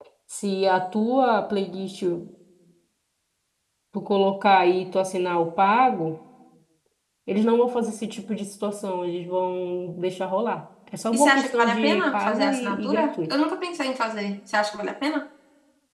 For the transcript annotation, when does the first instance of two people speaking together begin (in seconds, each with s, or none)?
11.1 s